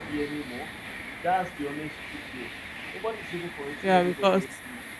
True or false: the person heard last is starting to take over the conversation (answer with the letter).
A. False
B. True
B